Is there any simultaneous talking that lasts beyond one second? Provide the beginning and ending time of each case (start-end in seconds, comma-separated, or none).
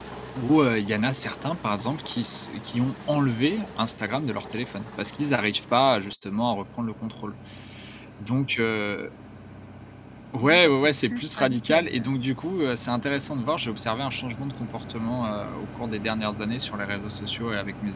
10.4-12.1